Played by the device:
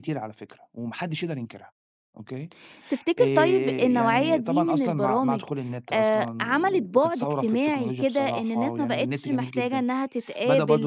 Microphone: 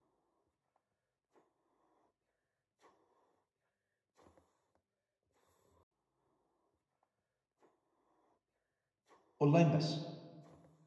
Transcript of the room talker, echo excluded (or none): أونلاين بس،